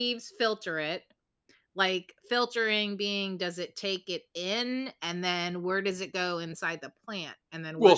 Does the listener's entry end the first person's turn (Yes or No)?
Yes